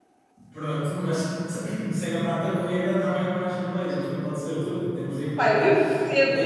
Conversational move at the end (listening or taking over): taking over